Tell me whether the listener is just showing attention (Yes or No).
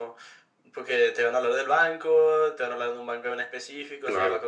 Yes